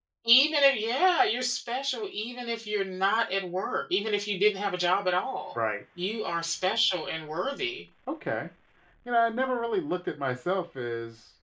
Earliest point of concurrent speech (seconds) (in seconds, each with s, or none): none